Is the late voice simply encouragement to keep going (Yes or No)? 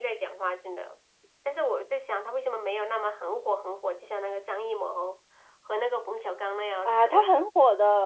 No